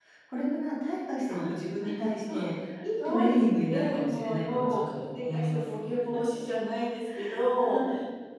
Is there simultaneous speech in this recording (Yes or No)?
Yes